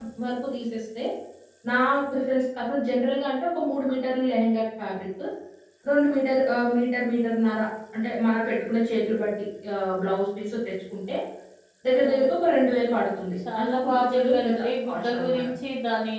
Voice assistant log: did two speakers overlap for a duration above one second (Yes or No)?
Yes